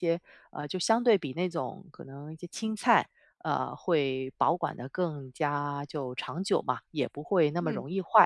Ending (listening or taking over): listening